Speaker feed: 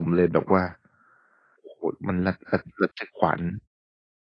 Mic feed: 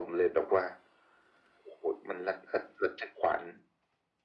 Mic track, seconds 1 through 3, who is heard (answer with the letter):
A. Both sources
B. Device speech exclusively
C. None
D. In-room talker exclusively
B